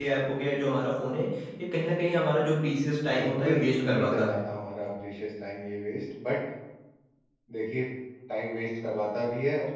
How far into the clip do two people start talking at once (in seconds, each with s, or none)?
3.0 s